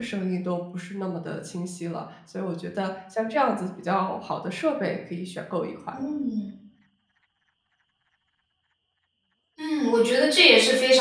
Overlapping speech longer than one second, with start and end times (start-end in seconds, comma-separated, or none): none